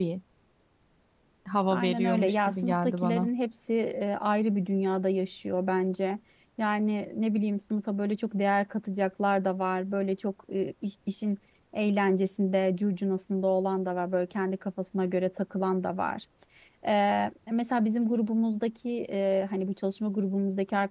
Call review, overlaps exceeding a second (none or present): present